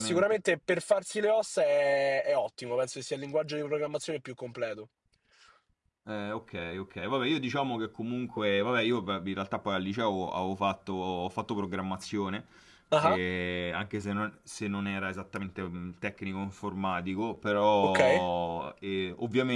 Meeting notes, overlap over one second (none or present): none